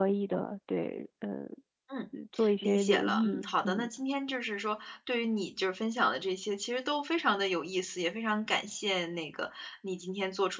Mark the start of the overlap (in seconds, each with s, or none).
2.6 s